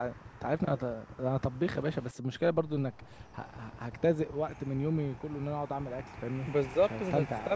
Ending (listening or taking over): taking over